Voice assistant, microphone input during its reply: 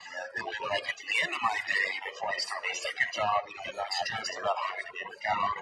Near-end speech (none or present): none